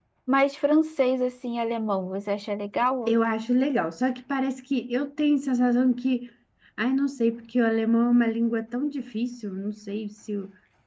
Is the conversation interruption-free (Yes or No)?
Yes